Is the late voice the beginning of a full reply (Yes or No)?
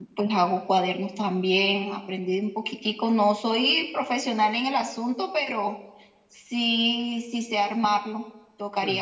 No